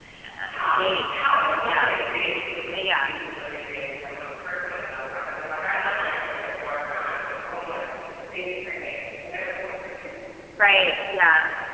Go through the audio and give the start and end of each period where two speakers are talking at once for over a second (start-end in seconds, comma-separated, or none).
none